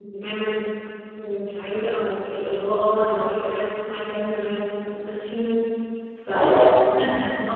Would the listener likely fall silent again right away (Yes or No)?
Yes